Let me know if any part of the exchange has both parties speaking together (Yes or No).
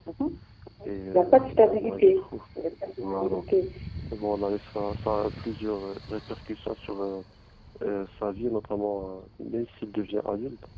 Yes